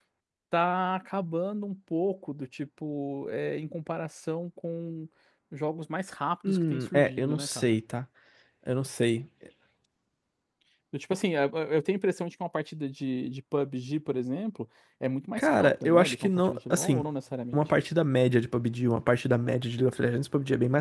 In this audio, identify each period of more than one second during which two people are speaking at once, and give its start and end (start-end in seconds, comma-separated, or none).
6.5-7.8, 15.4-17.0